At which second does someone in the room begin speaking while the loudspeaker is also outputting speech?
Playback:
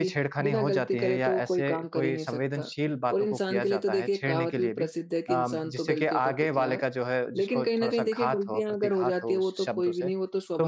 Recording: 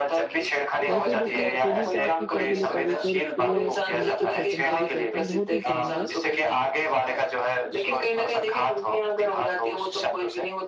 0.9 s

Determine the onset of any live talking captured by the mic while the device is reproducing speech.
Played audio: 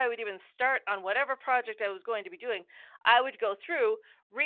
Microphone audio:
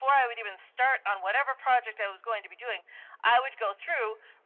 none

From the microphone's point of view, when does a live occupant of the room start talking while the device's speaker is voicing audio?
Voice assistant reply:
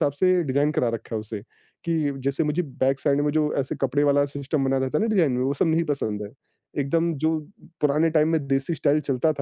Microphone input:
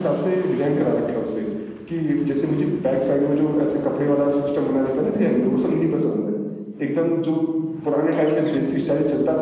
none

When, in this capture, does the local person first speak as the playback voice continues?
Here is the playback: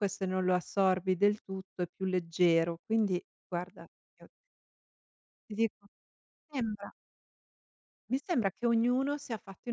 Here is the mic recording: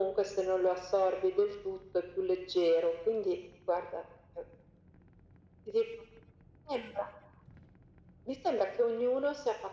none

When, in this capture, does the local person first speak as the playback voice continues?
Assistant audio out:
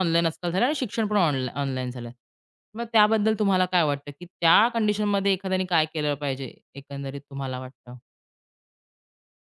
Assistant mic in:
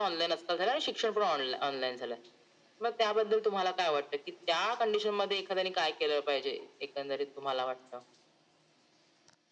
none

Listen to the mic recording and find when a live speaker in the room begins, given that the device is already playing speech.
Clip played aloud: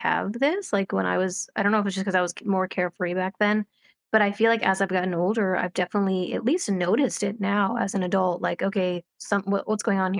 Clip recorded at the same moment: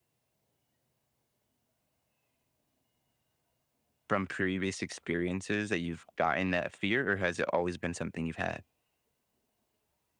4.1 s

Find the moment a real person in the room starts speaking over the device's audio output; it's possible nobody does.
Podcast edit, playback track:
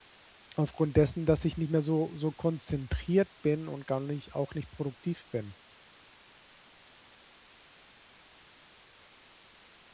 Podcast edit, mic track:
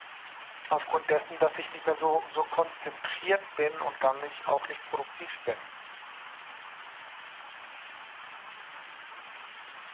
none

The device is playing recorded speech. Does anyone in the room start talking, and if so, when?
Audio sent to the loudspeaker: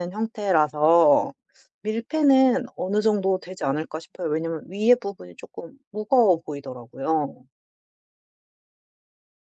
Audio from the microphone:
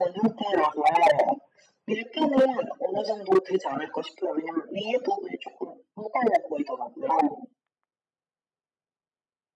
none

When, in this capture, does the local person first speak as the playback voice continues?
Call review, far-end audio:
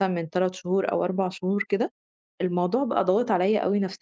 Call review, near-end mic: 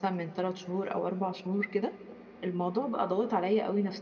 none

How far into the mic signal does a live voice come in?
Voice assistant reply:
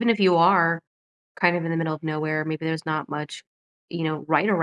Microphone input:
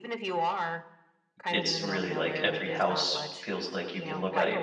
1.5 s

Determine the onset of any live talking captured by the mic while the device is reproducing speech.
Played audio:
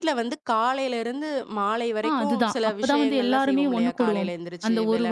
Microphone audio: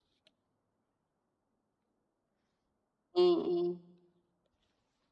3.2 s

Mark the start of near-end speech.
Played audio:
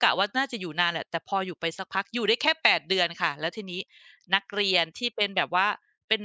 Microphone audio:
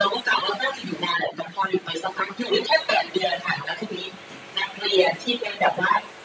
none

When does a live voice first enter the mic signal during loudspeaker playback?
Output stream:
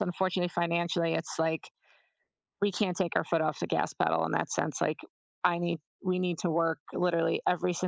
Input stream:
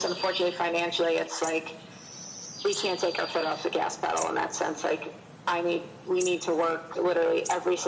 none

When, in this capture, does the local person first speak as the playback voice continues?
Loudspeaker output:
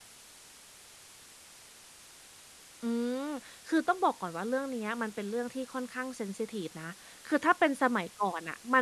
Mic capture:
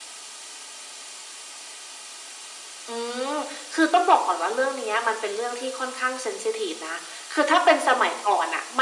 none

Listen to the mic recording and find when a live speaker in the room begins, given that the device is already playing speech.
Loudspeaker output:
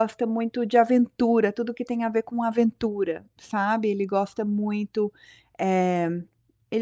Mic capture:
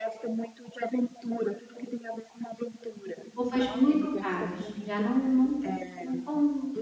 3.3 s

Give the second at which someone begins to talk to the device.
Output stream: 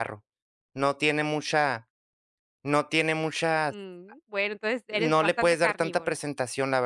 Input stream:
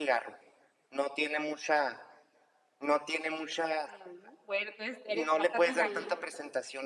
5.6 s

